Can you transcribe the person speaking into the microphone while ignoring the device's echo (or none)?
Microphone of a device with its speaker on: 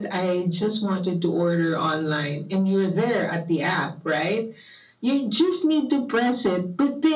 none